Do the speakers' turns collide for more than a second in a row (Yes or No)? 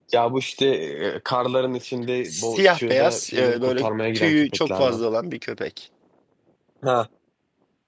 Yes